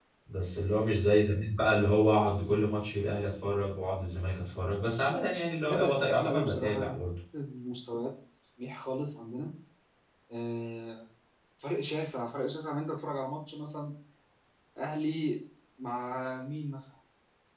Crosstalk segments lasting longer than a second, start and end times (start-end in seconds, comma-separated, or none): 5.6-7.0